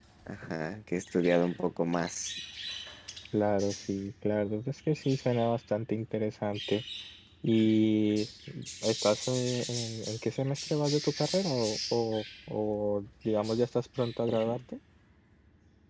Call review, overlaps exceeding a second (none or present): none